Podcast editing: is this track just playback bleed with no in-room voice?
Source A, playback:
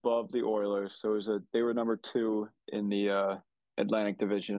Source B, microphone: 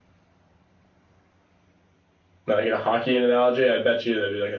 No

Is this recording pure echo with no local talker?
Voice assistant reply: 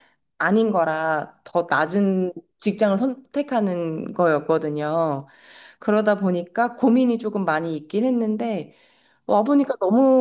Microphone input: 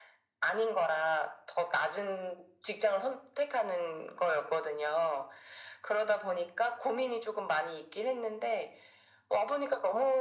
Yes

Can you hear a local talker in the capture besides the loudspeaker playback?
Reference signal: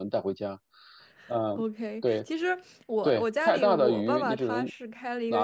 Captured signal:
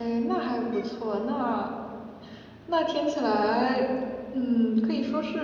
Yes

